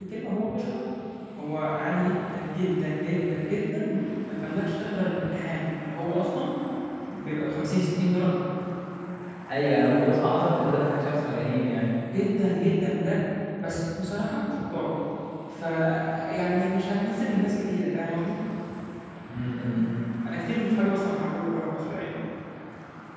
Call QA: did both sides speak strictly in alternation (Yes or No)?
Yes